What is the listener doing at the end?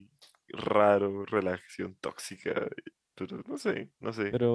taking over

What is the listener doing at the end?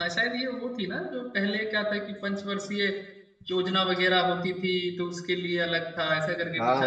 taking over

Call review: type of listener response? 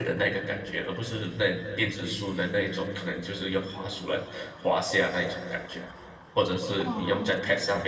listening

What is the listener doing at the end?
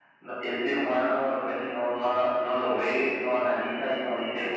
listening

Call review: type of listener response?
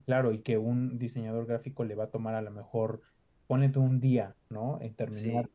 listening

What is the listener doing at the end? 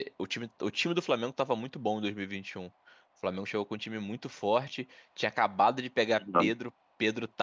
listening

